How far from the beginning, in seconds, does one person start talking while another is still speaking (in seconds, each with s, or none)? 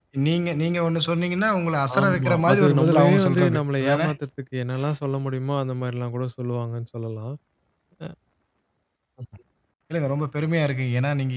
1.9 s